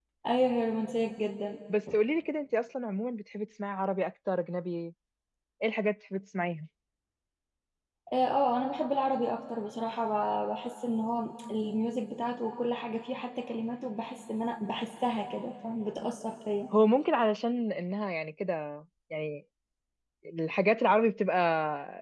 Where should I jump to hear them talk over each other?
none

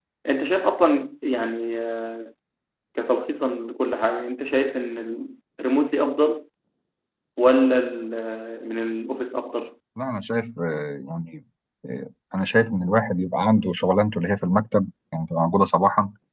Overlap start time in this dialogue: none

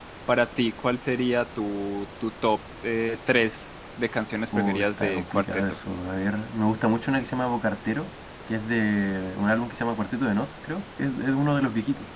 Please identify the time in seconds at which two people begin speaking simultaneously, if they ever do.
4.5 s

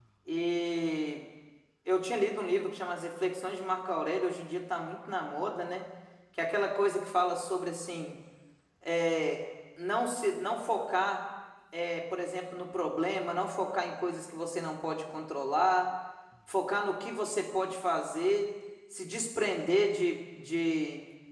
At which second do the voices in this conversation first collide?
none

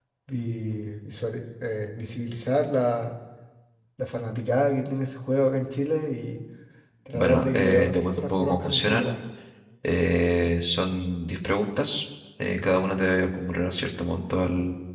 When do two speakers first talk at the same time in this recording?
7.1 s

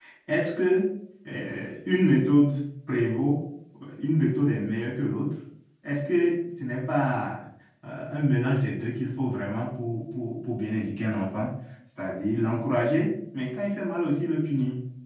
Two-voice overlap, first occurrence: none

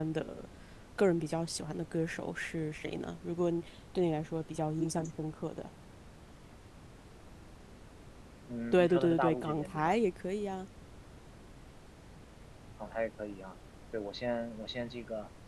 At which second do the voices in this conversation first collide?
8.7 s

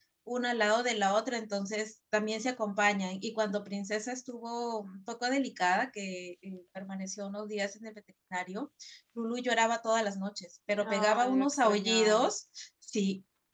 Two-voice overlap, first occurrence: 10.8 s

